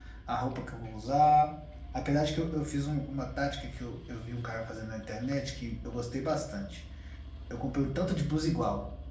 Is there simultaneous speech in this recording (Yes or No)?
No